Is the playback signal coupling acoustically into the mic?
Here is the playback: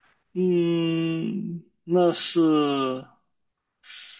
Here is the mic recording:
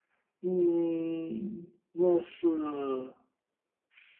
Yes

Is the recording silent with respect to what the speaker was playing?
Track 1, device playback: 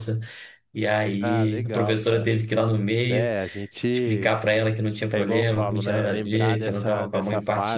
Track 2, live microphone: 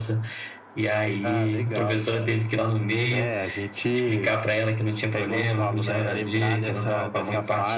No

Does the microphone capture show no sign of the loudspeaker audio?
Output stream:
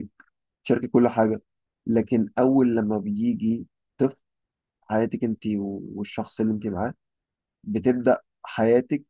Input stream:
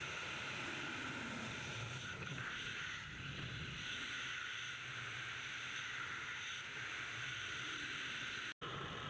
Yes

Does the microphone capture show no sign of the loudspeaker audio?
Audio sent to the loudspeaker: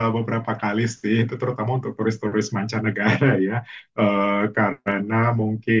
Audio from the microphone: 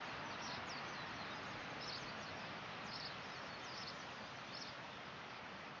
Yes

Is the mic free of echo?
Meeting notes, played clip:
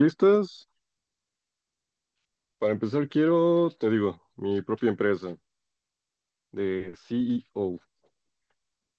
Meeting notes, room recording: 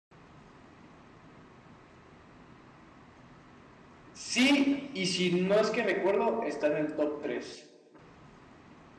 Yes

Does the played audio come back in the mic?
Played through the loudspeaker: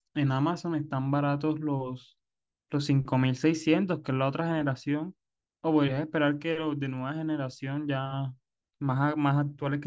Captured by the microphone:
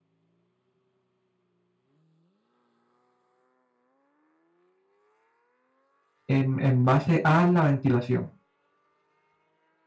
No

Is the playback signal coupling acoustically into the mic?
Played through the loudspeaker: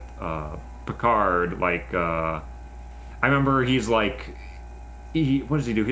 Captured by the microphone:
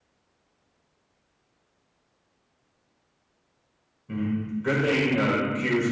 No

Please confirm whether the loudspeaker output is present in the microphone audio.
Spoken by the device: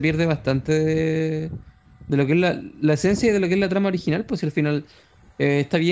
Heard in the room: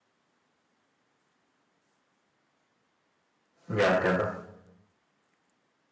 No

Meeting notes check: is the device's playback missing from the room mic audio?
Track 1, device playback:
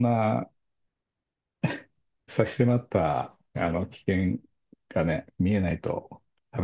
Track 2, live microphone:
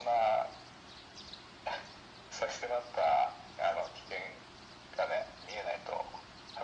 No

